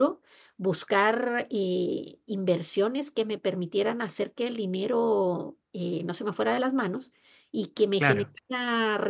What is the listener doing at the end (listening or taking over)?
listening